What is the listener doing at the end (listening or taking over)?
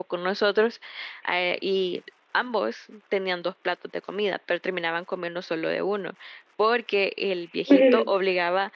listening